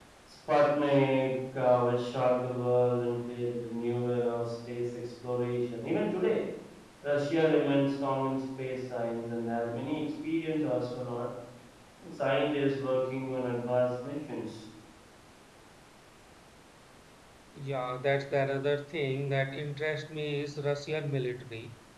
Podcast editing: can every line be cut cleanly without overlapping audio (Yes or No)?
Yes